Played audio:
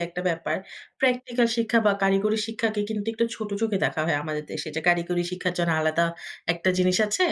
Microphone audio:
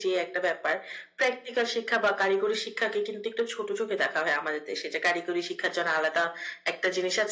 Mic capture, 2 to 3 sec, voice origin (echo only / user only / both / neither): echo only